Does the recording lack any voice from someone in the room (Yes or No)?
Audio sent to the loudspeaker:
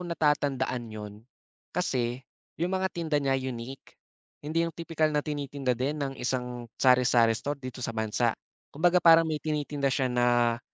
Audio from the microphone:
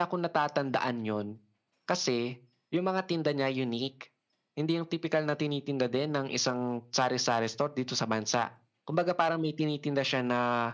Yes